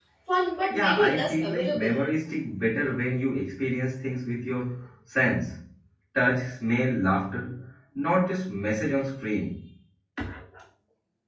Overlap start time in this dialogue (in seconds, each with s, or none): 0.7 s